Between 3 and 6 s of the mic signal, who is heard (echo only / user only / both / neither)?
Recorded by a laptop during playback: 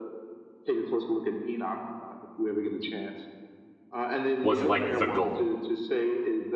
both